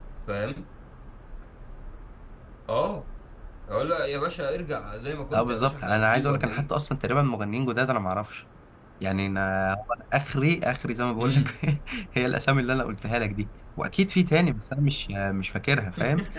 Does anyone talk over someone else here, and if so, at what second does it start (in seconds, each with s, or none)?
5.3 s